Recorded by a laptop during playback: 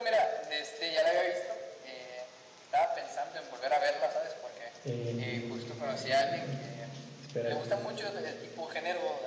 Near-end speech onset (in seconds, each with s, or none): 4.8 s